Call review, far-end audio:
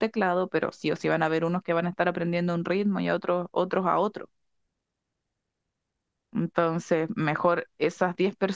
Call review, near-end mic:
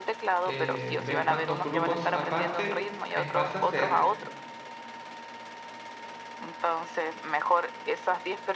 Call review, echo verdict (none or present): present